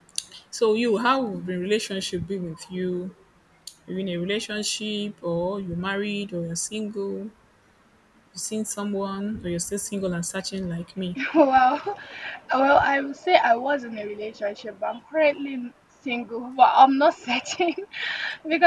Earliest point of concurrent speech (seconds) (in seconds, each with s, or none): none